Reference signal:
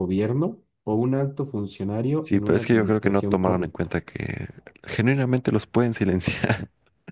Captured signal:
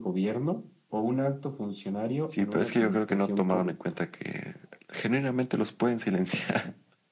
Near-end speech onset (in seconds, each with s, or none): none